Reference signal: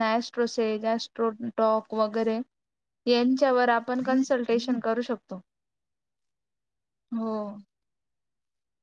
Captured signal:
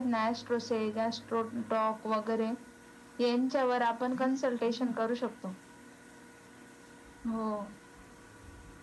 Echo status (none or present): present